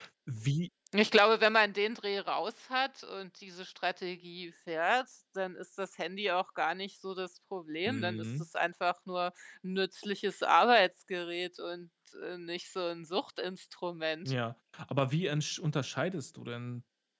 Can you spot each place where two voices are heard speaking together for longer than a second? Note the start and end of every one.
none

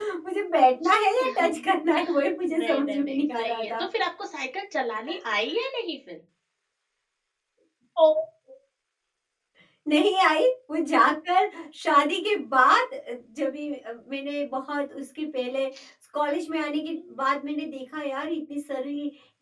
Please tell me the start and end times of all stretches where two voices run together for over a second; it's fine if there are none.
2.5-3.8

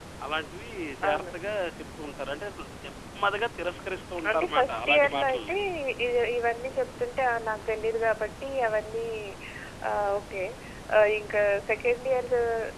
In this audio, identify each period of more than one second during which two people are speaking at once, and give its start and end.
4.3-5.5

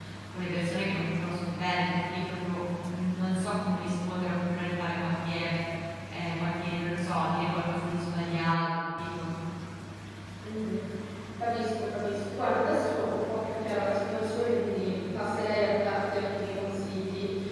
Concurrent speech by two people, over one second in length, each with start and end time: none

